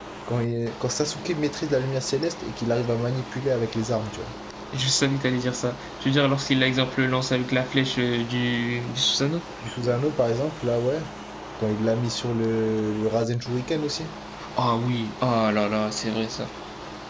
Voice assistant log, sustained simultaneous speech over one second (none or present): none